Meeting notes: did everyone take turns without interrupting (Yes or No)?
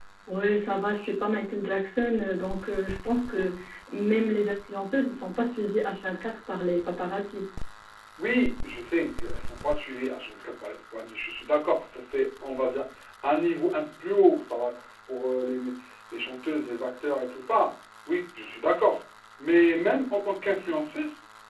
Yes